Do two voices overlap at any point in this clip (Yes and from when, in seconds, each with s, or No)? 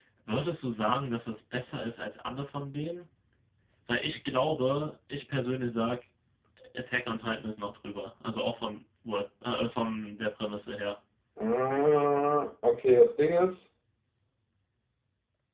No